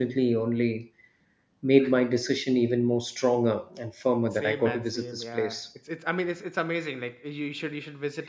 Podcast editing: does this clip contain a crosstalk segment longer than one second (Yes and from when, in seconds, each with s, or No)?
Yes, from 4.3 s